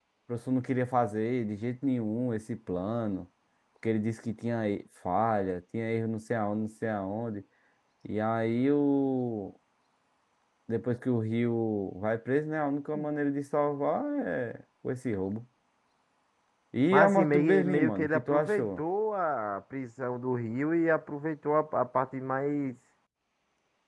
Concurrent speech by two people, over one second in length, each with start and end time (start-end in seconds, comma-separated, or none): 16.9-18.7